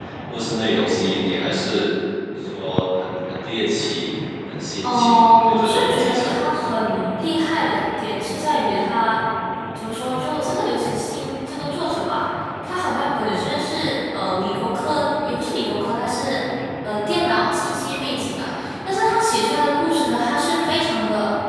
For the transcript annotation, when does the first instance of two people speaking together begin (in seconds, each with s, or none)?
4.8 s